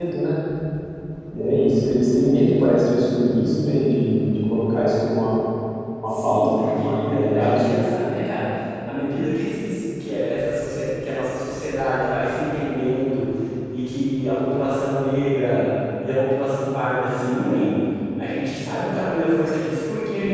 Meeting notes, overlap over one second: present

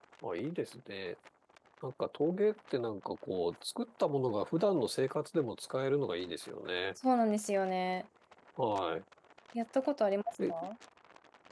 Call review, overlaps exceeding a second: none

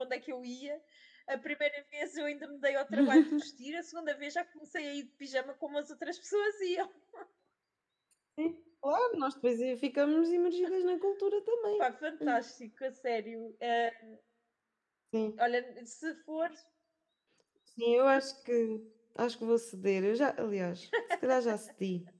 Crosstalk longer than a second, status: none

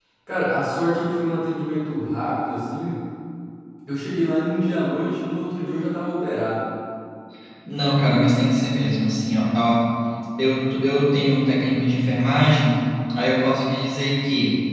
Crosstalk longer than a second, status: none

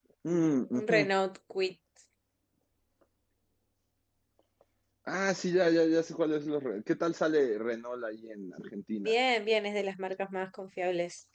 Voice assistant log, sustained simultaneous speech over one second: none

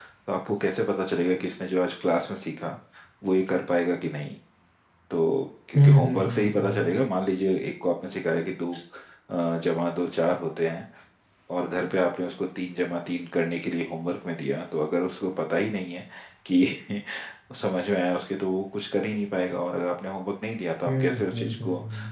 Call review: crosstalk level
present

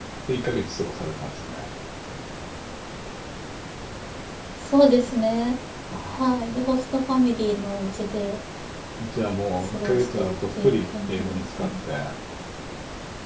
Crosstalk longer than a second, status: present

